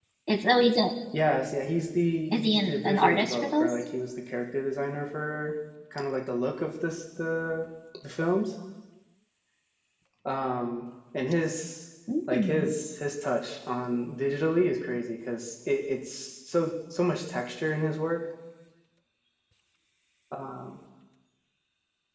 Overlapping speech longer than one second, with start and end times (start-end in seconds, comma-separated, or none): 2.3-3.7